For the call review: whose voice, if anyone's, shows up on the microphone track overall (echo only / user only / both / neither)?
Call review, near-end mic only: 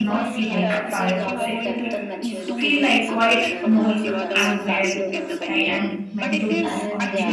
both